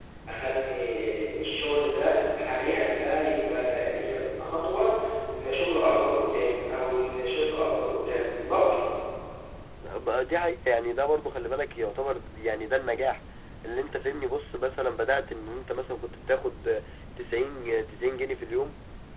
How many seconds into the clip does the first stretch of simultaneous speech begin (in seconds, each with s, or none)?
none